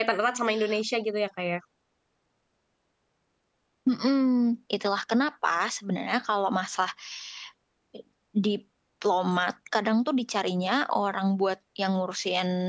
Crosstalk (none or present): none